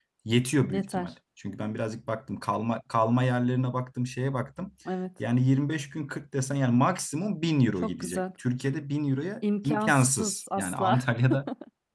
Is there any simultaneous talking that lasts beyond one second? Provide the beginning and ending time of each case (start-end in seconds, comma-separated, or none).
9.6-11.0